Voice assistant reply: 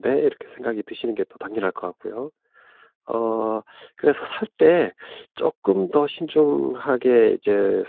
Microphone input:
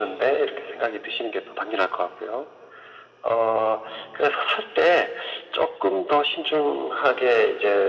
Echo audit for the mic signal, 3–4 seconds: echo only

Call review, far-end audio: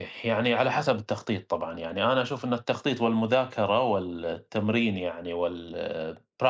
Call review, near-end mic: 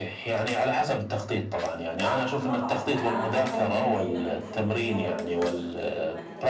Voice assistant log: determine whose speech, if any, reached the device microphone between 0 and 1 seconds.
echo only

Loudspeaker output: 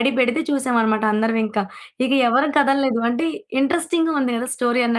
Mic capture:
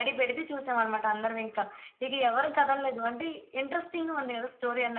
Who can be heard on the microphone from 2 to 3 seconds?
echo only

